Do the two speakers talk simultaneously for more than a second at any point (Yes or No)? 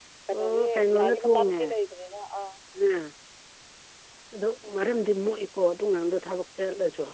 Yes